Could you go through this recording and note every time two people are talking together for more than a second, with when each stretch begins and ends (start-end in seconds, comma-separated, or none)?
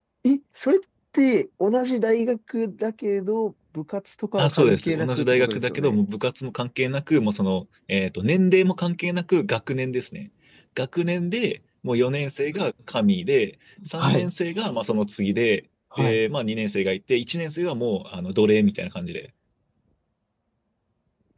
4.4-6.0